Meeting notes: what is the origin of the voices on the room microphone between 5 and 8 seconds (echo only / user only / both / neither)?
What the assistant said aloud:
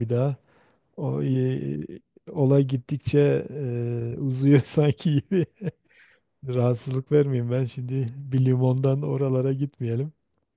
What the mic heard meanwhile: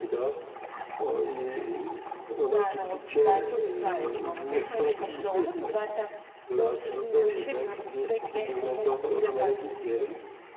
both